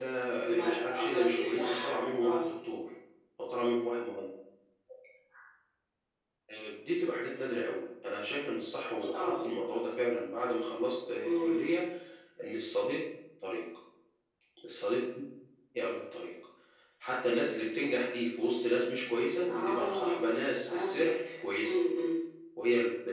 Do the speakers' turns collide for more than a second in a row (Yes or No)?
Yes